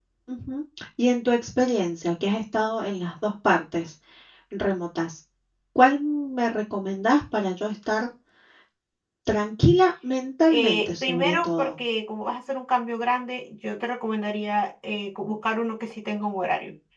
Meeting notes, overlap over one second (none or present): present